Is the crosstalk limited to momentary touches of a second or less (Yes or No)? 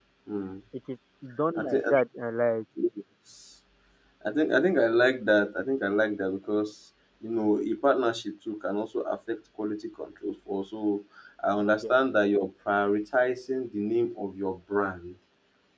Yes